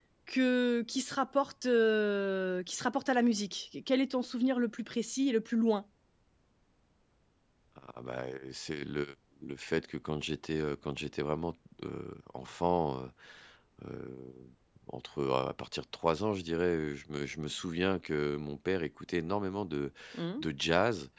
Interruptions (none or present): none